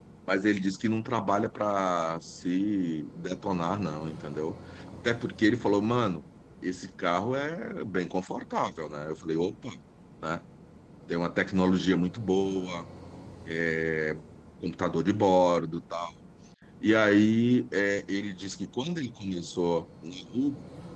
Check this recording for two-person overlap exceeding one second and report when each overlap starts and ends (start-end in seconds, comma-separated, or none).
none